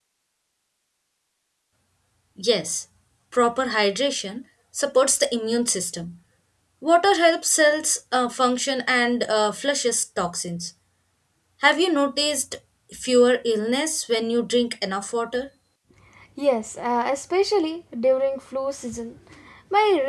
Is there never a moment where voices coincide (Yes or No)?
Yes